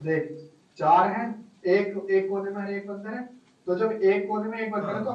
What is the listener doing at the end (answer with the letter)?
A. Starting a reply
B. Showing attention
B